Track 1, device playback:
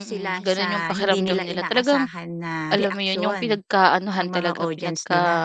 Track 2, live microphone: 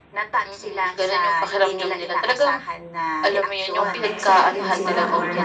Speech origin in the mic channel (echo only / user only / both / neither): both